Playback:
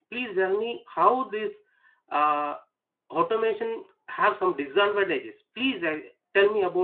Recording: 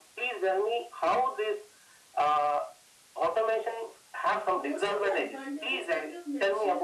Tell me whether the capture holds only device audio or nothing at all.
No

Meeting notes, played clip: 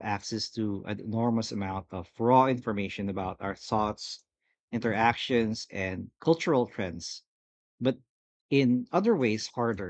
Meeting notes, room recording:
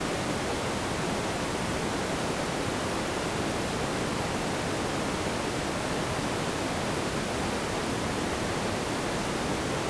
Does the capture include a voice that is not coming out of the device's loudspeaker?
No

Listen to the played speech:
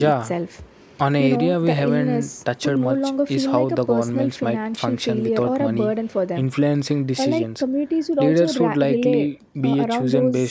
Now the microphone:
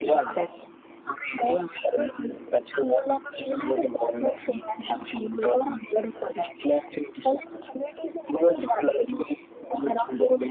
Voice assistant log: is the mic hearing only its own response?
Yes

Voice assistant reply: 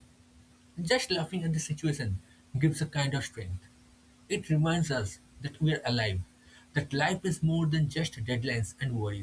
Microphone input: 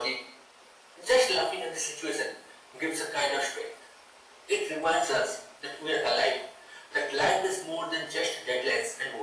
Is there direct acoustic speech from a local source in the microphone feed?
No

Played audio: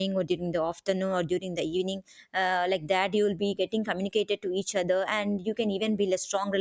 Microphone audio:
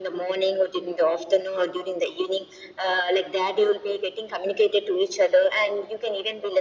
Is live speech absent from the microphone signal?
Yes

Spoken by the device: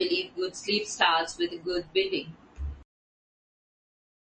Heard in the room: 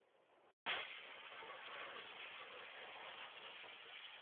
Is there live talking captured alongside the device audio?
No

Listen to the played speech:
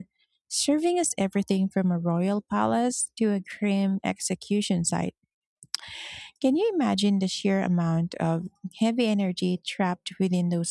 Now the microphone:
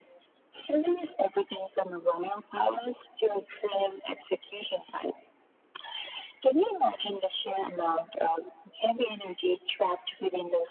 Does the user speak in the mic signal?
No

